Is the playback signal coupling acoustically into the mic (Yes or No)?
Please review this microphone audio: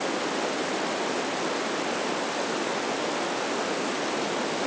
No